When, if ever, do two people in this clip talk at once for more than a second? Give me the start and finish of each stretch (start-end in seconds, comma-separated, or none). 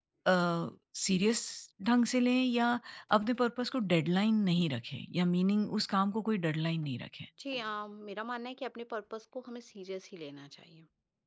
none